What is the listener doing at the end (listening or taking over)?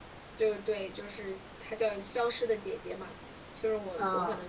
listening